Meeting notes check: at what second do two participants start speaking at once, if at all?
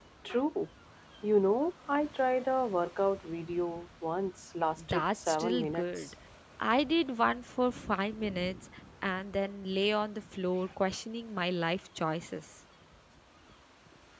4.8 s

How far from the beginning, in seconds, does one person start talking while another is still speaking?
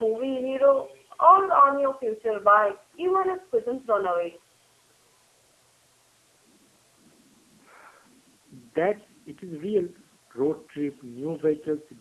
none

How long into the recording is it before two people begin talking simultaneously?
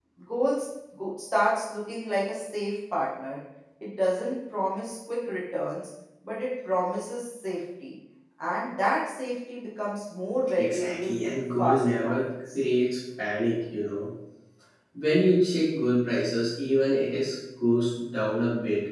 10.6 s

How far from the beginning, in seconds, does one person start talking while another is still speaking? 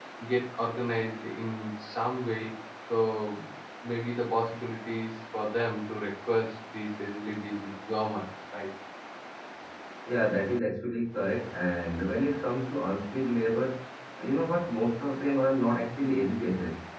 none

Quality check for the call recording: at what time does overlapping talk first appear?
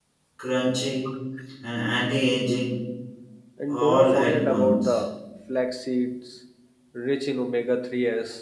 3.7 s

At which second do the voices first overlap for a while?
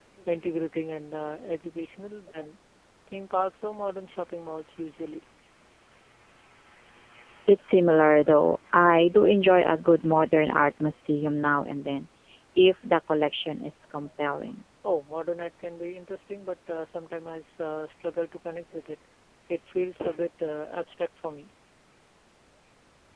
none

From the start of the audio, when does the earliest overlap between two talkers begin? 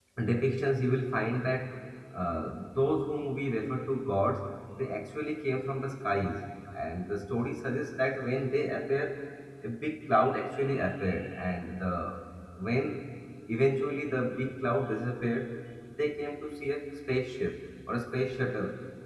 none

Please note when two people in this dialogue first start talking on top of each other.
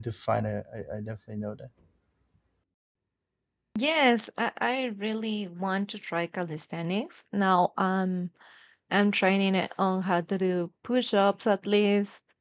none

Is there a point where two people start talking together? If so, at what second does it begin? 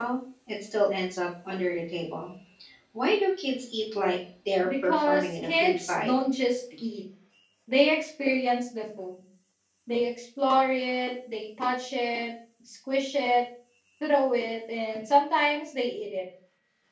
4.7 s

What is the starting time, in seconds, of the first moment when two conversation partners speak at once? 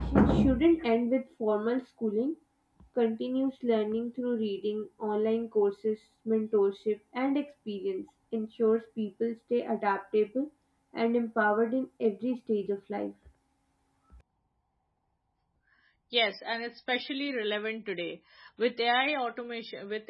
none

